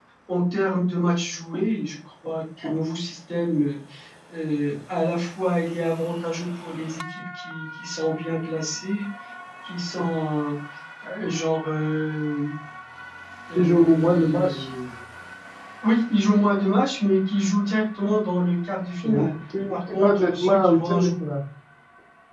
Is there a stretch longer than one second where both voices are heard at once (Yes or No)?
Yes